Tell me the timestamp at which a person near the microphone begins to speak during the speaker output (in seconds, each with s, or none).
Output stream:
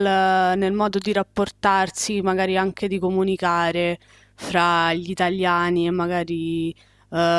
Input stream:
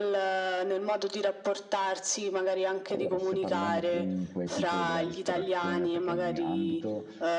2.9 s